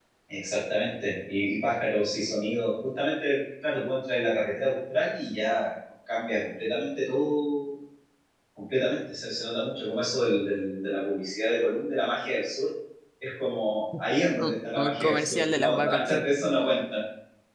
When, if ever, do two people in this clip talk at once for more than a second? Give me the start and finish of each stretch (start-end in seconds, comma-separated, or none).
14.4-16.2